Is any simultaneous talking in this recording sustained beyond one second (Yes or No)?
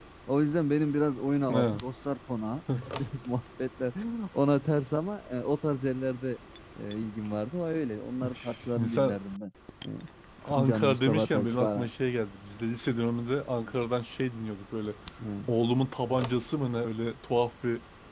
Yes